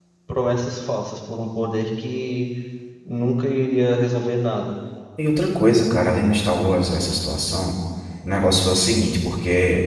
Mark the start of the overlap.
none

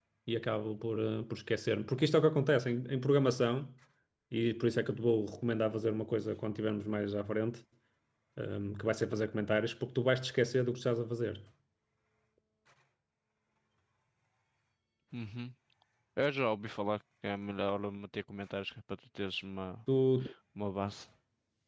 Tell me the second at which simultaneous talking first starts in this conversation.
none

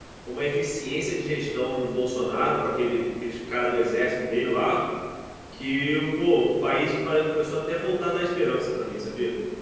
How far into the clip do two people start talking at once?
none

